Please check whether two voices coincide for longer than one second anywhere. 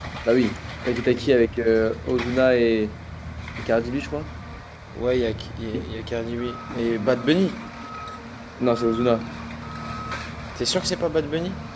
No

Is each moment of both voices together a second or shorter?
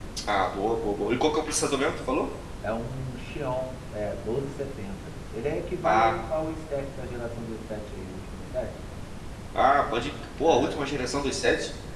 Yes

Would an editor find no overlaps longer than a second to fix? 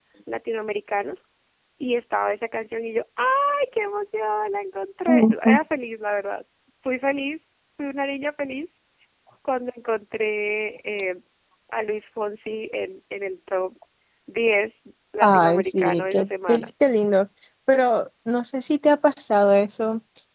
No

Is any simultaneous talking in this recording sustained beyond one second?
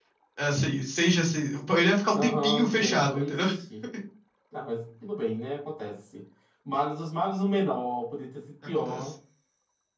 Yes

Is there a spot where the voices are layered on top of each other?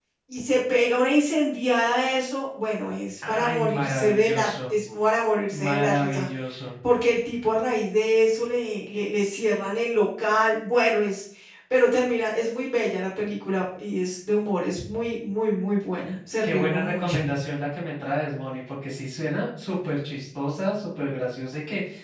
Yes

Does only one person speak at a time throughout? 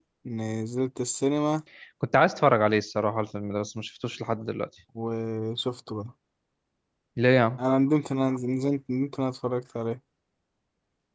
Yes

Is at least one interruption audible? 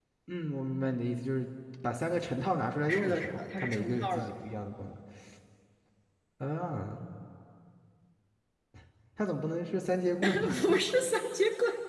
Yes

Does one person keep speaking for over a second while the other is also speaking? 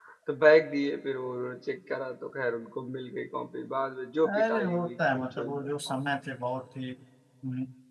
Yes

